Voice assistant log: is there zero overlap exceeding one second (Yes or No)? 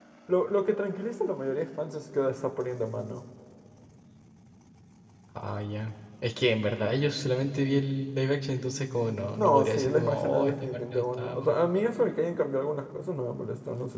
No